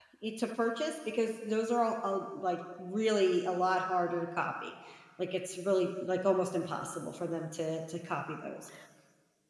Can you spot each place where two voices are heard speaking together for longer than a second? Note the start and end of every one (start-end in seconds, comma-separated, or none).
none